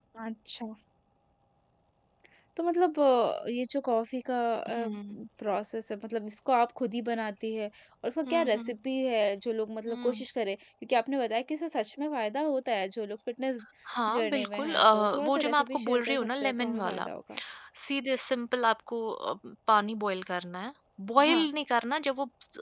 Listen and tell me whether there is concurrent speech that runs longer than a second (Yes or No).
Yes